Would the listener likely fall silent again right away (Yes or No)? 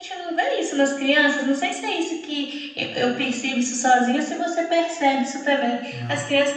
Yes